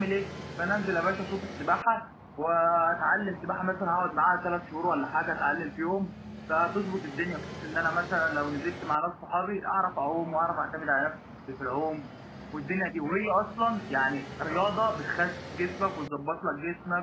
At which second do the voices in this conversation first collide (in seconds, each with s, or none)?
none